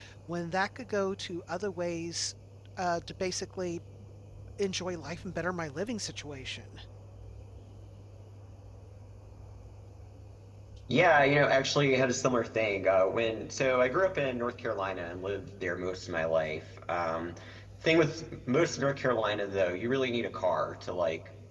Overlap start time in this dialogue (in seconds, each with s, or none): none